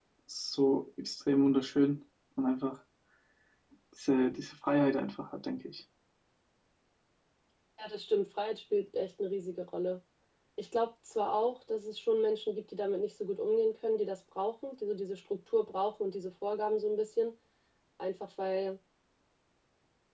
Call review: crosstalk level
none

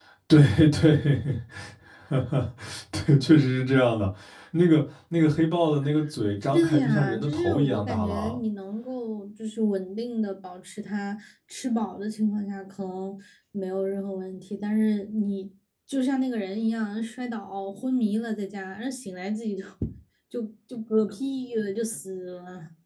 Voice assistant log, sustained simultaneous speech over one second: present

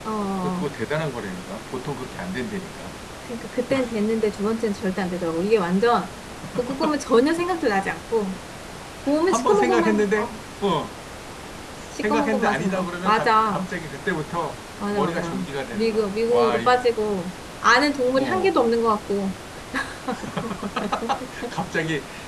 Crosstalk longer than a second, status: present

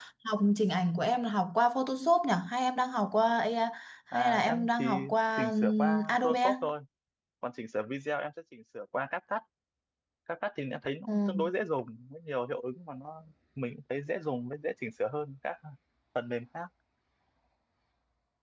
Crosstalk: present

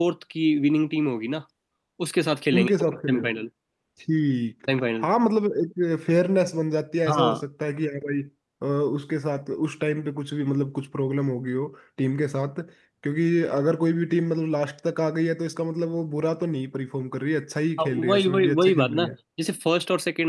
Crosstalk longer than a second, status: present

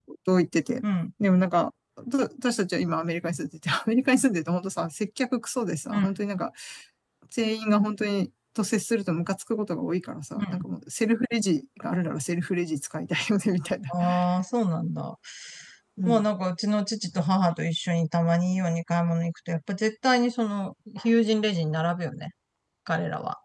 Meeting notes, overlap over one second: none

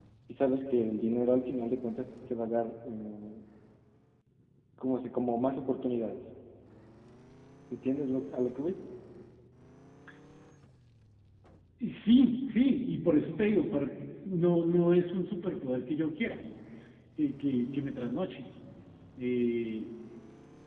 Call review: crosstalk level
none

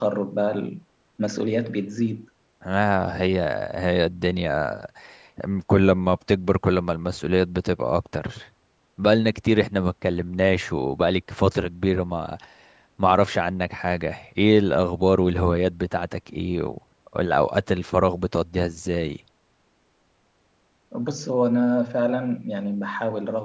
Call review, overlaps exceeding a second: none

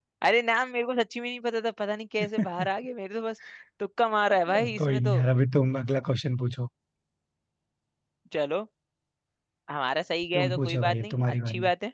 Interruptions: present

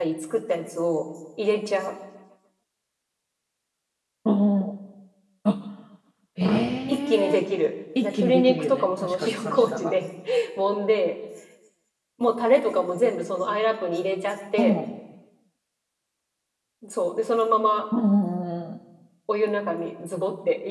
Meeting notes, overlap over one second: present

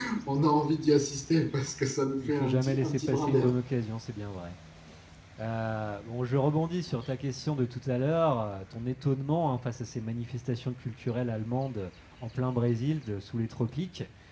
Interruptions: present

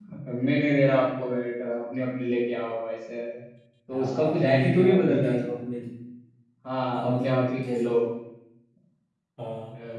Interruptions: present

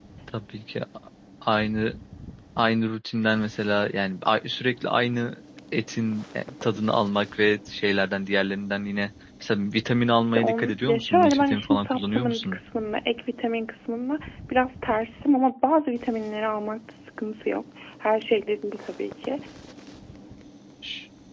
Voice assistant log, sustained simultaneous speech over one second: present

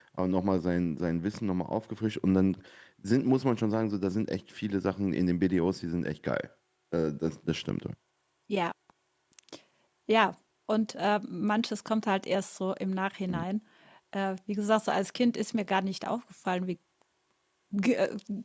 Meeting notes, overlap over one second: none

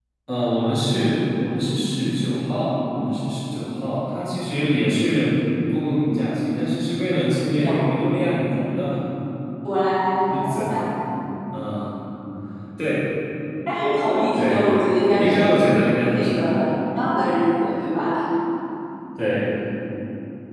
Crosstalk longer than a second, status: present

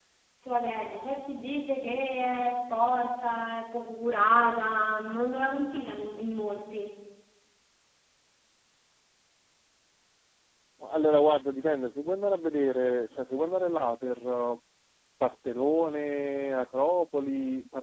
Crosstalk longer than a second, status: none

